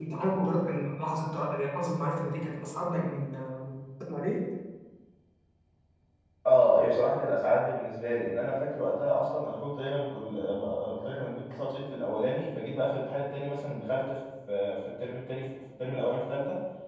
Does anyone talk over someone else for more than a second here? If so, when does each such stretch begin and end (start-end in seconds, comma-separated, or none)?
none